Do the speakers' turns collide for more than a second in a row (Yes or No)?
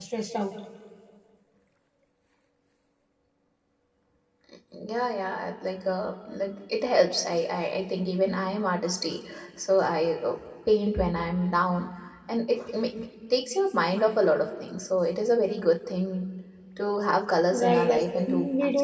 Yes